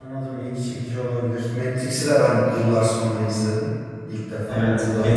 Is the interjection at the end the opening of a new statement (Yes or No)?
Yes